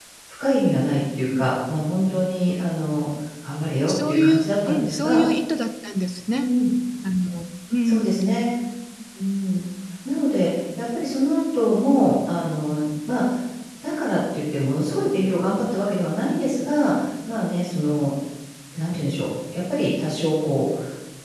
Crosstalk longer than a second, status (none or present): present